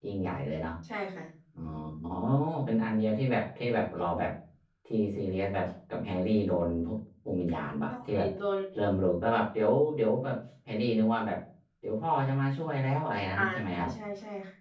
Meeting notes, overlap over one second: none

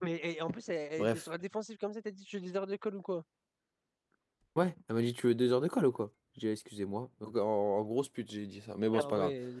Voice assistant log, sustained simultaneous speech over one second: none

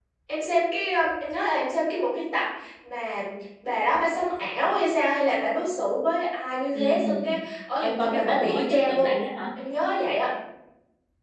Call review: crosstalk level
present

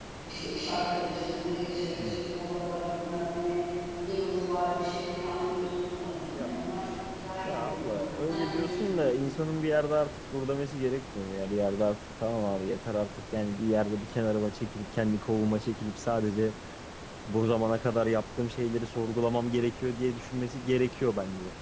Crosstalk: present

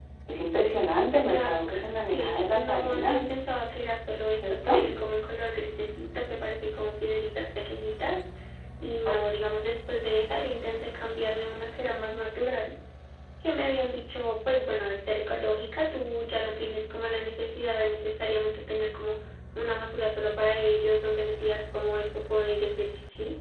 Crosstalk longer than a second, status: present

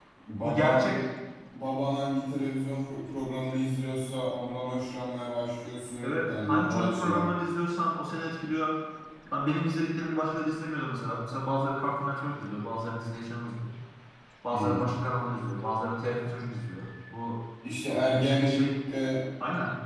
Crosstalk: present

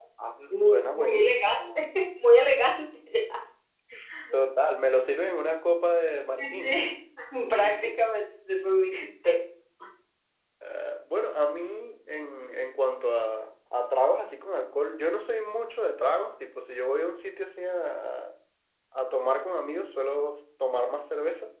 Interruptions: present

